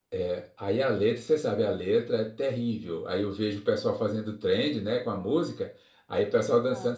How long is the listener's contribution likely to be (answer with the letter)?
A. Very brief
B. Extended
A